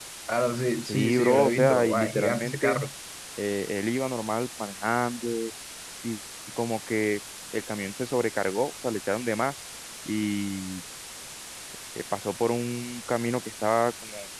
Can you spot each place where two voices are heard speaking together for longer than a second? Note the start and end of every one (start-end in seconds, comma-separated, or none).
0.8-2.8